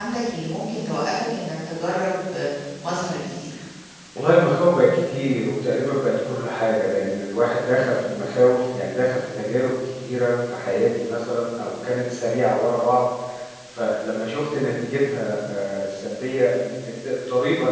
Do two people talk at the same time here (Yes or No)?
No